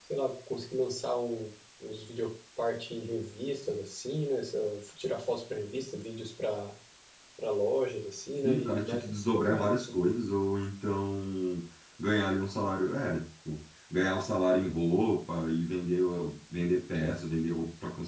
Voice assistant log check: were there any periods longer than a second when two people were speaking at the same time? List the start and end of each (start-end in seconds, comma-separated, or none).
8.4-10.0